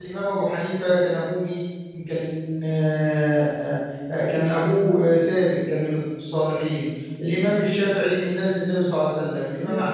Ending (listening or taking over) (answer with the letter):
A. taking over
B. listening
B